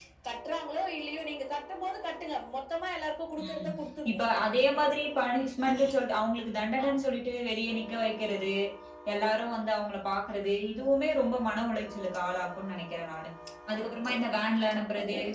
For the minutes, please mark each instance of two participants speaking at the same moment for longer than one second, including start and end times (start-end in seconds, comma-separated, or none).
none